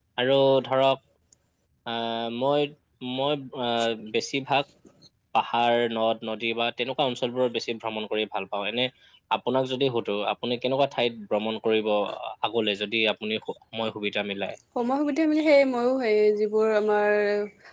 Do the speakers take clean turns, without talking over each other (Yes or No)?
Yes